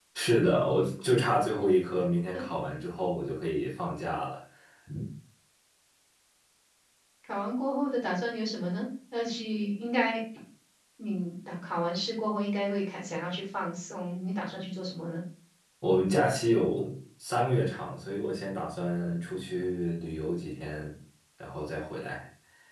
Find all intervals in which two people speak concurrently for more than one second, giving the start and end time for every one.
none

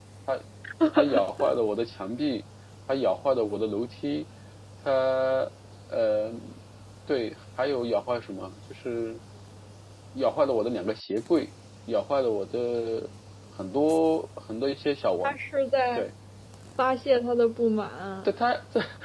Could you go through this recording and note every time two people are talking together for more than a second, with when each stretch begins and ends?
none

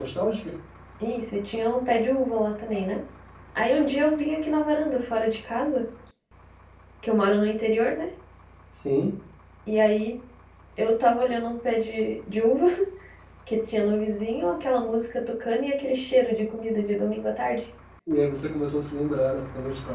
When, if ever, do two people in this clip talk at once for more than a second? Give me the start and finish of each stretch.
none

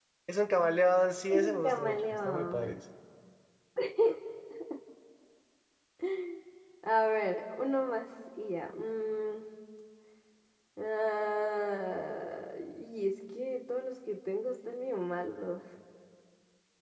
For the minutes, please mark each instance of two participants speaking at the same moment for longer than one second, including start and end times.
1.3-2.8

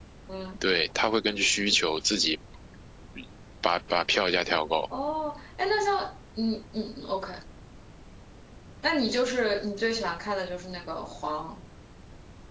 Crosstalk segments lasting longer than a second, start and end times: none

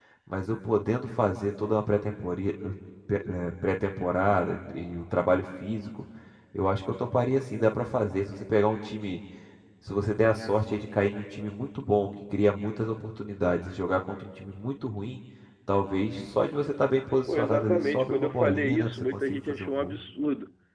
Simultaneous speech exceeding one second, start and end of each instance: 17.3-20.0

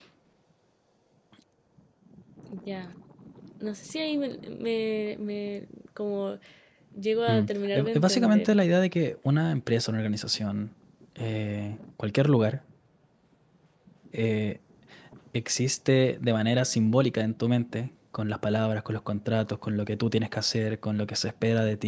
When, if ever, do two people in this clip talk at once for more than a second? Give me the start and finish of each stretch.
7.3-8.6

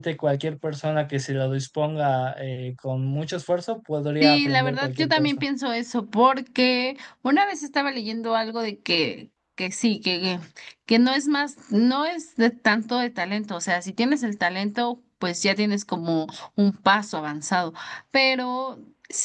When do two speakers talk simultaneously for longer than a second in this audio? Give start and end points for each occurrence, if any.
4.2-5.5

